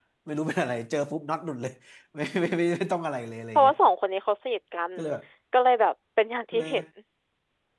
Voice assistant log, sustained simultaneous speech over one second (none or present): none